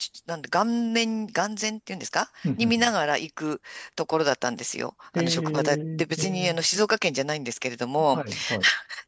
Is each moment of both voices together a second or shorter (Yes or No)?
No